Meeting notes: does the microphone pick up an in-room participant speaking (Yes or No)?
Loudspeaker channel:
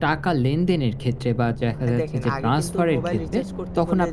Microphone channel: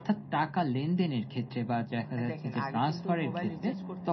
No